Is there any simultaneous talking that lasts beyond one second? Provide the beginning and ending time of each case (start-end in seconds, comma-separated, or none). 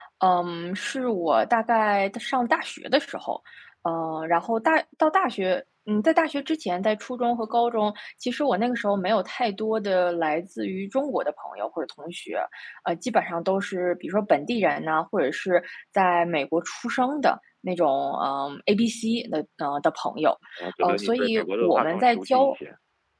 20.8-22.6